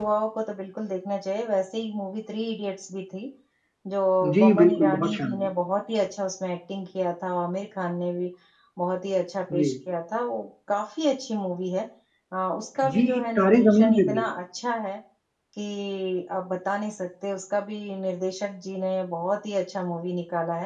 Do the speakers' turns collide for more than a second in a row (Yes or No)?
Yes